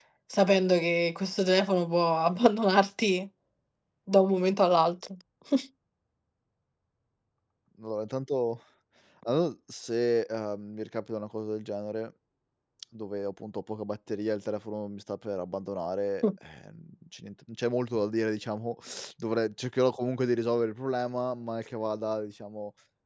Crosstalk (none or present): none